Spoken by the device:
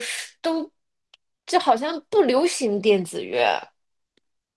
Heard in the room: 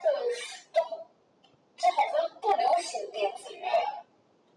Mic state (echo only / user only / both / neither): echo only